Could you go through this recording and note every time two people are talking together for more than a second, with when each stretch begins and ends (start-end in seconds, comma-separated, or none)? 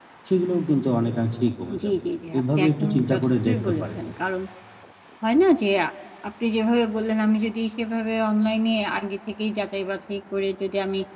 2.4-4.0